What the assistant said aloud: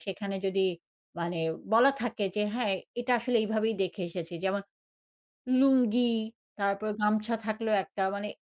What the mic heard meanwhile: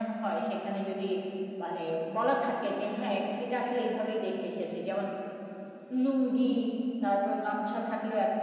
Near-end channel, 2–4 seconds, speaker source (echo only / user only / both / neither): echo only